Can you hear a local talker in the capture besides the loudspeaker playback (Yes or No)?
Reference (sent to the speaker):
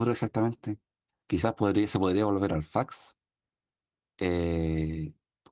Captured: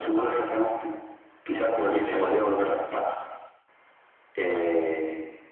Yes